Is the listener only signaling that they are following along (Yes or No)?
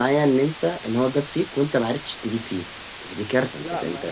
No